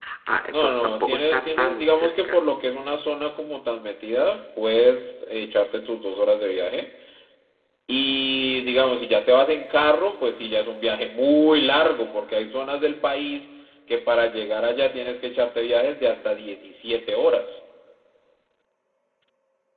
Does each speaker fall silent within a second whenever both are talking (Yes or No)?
No